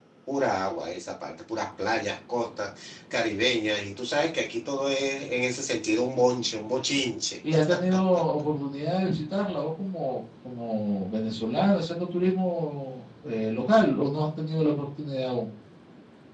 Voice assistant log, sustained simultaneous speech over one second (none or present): none